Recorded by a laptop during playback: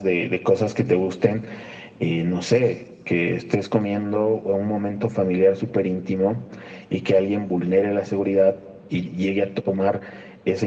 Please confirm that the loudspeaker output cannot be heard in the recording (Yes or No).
No